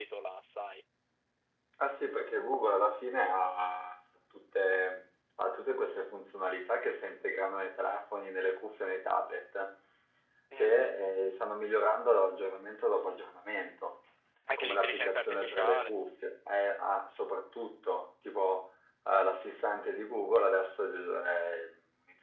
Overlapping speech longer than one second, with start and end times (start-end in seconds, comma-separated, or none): 14.6-15.9